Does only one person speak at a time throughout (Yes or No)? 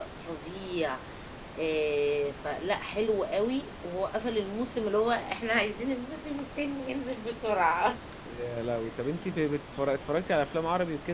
Yes